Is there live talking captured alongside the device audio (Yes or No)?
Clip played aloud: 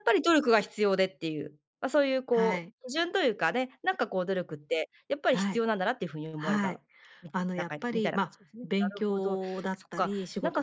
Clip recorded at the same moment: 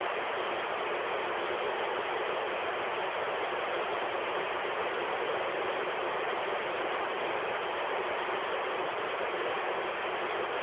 No